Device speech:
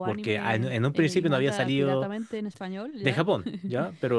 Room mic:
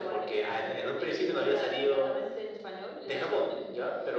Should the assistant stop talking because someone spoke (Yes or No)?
No